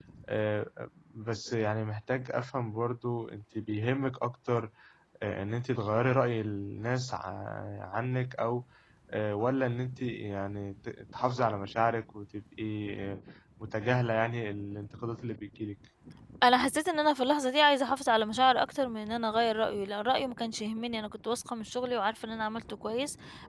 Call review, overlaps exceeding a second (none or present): none